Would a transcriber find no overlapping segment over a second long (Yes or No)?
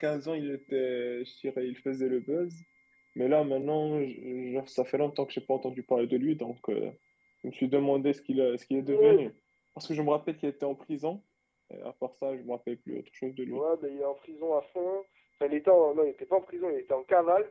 Yes